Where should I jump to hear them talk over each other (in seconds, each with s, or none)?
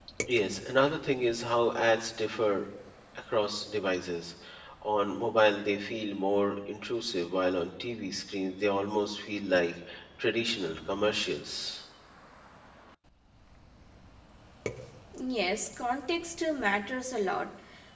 none